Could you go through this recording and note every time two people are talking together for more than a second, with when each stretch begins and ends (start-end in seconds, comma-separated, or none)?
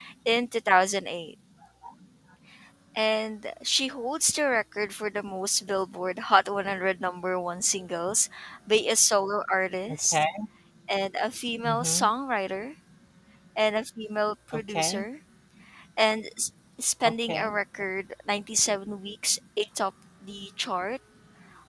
none